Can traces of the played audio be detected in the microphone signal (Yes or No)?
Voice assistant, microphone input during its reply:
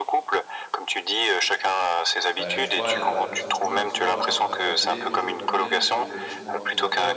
Yes